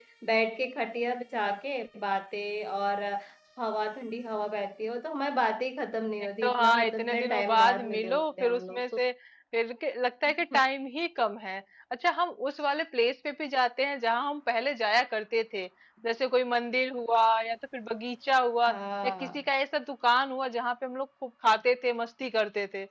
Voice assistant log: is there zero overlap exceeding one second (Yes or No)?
No